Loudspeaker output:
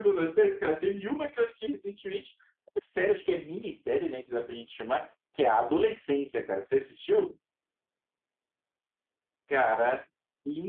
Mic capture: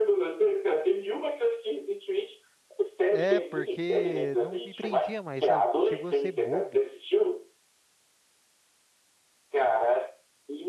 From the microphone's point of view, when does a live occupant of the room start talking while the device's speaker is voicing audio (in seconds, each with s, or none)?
3.1 s